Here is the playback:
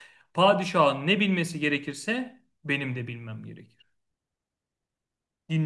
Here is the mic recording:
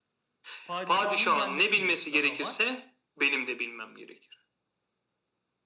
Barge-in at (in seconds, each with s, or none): 0.6 s